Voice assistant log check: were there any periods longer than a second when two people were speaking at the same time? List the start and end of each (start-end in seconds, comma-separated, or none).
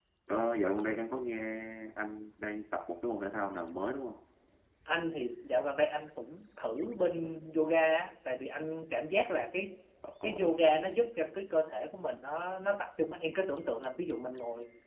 none